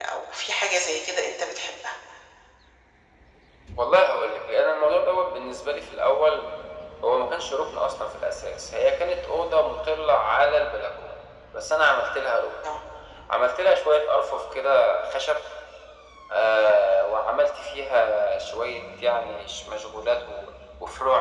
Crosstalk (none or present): none